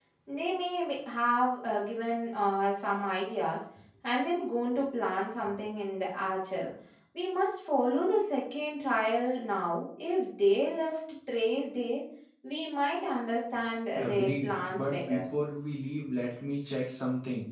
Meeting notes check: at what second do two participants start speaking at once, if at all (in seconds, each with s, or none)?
13.9 s